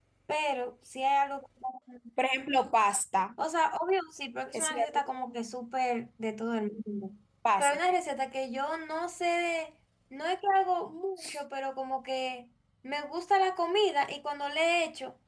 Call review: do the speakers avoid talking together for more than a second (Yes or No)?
Yes